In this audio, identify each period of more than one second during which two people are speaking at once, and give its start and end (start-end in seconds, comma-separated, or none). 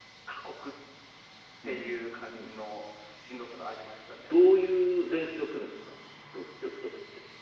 none